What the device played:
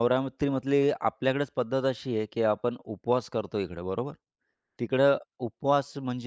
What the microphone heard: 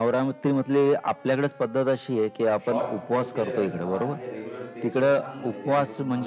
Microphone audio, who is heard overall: both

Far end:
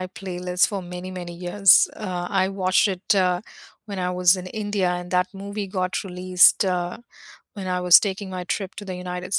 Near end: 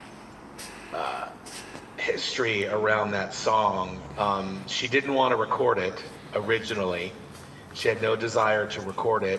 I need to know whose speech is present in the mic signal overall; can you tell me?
user only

